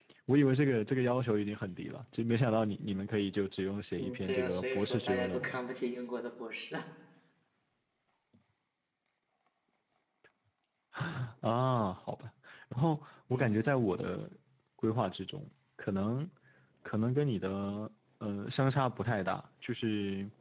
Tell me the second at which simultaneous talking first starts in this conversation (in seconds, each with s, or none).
4.0 s